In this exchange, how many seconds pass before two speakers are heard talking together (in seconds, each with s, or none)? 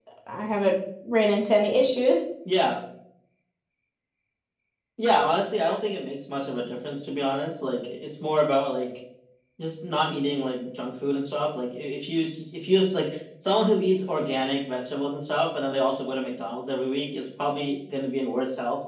none